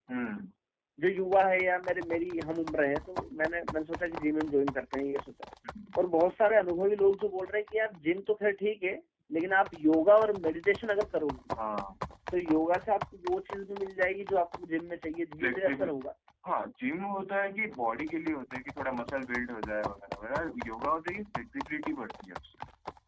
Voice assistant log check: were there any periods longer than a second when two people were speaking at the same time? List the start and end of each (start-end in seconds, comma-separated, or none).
none